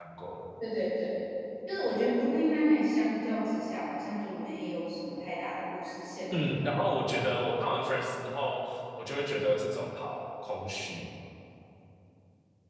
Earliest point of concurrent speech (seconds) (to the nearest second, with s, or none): none